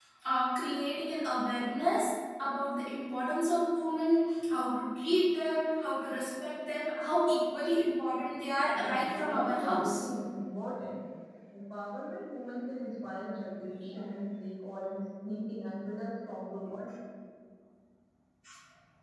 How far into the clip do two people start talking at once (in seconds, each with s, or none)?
8.7 s